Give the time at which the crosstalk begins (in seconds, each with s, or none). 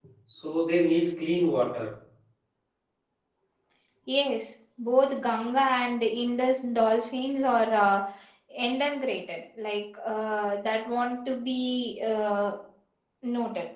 none